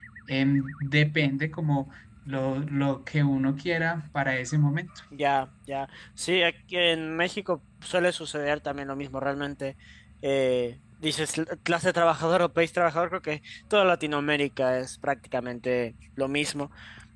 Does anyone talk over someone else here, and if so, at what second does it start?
none

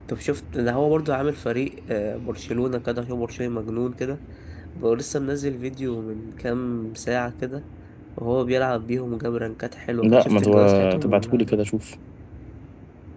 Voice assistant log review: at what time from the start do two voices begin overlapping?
10.0 s

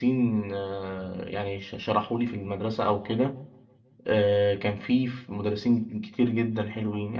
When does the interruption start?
none

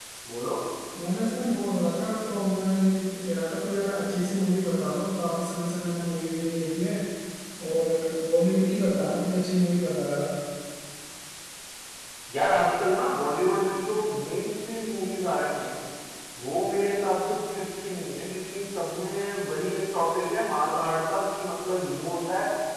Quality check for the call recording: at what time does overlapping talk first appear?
none

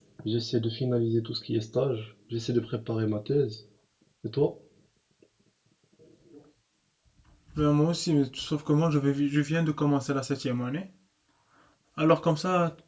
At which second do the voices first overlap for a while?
none

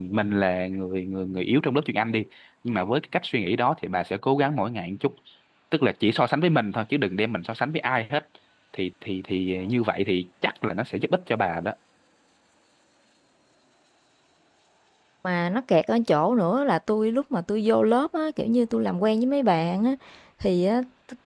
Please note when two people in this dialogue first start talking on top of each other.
none

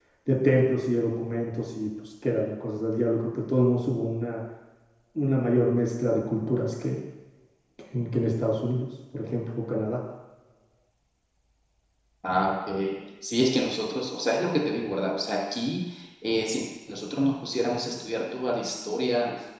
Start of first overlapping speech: none

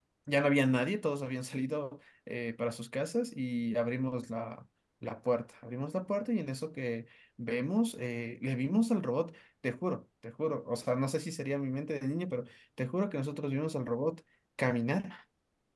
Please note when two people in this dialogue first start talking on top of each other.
none

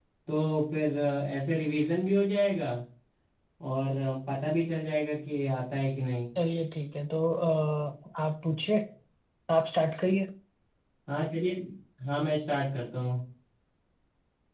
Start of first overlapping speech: none

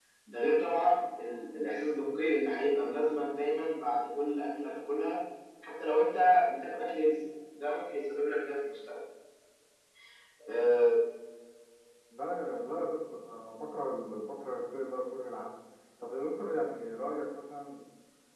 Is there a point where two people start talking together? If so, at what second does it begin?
none

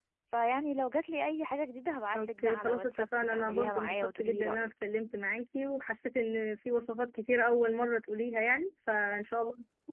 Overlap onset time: 2.1 s

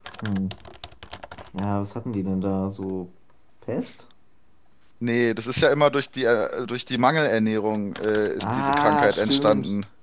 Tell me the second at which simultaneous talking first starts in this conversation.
8.4 s

